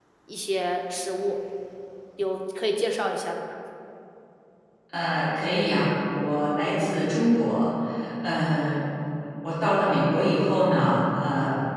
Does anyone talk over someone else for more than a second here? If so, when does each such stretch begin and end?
none

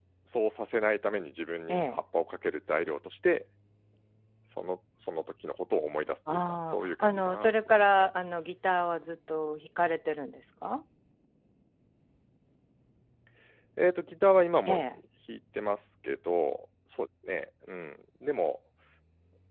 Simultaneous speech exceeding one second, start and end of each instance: 6.3-8.1

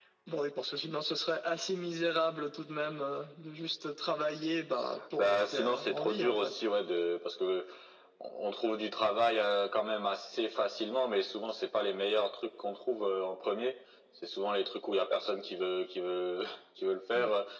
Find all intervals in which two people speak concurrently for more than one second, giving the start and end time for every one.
5.2-6.6

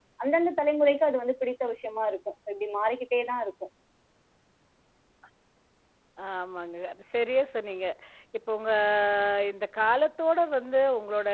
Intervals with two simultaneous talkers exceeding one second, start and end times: none

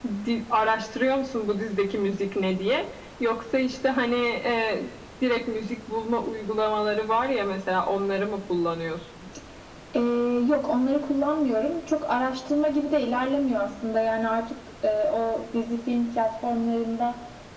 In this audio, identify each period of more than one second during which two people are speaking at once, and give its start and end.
none

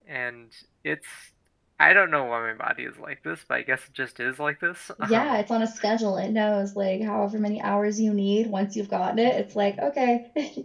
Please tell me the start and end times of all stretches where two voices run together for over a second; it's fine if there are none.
none

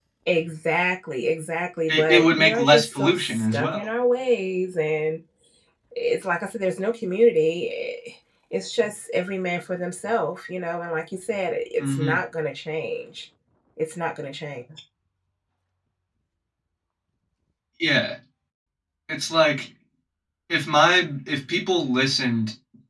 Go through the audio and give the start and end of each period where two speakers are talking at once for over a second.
1.9-3.9

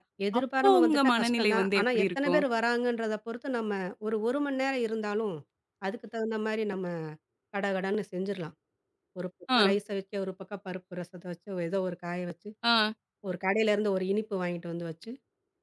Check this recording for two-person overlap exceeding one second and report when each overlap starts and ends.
0.6-2.4

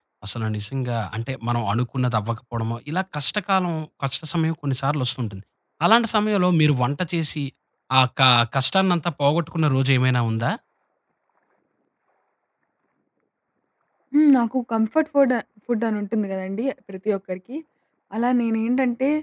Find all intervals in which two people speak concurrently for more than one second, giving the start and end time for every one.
none

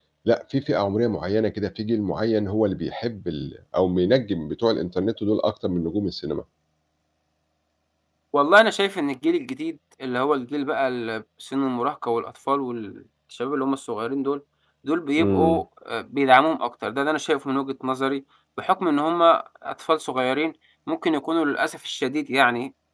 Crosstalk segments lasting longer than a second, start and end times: none

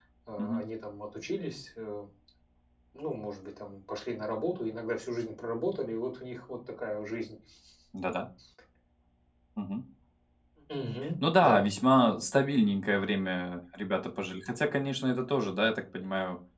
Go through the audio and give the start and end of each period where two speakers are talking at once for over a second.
none

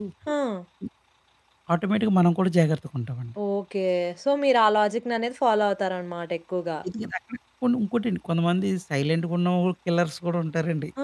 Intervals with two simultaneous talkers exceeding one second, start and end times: none

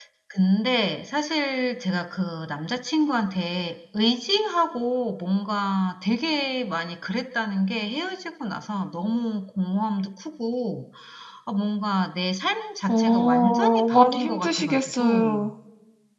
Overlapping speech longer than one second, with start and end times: 12.9-15.4

